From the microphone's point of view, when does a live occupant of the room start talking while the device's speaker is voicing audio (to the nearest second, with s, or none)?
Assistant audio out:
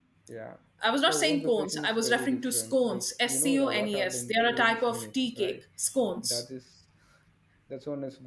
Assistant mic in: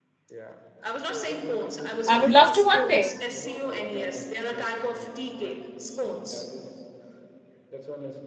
2 s